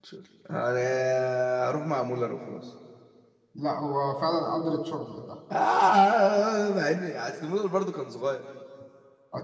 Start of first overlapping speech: none

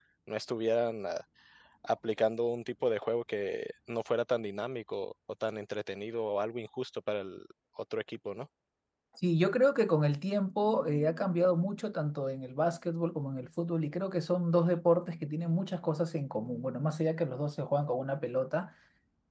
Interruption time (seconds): none

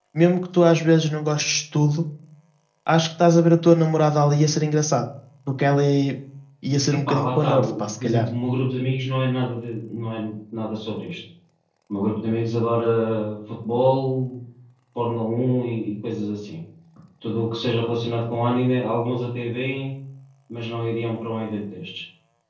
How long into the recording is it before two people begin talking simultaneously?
6.9 s

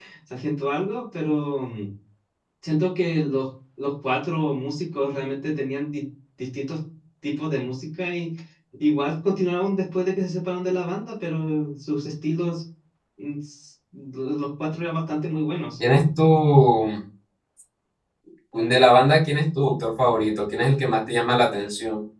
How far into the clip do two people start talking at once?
none

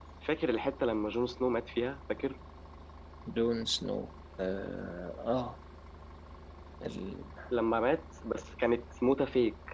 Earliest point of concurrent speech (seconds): none

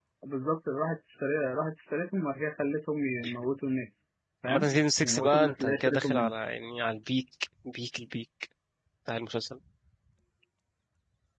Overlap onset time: 4.5 s

